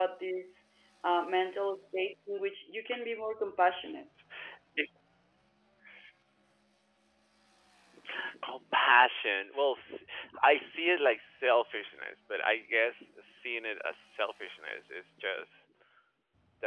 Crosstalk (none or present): none